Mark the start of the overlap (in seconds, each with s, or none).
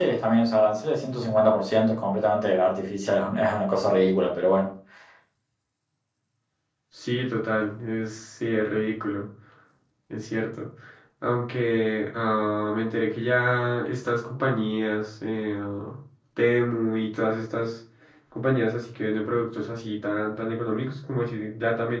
none